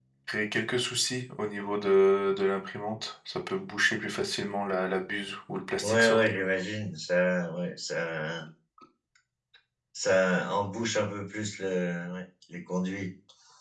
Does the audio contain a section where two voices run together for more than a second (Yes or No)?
No